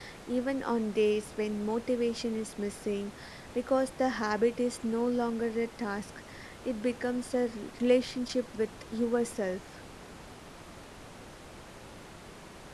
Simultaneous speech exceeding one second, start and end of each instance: none

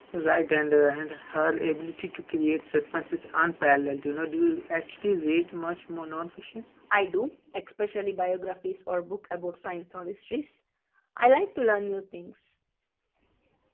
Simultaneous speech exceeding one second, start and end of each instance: none

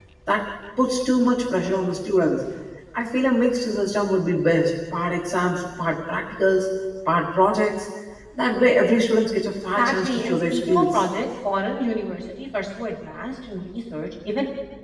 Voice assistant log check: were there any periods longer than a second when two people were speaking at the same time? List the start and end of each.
9.8-11.0

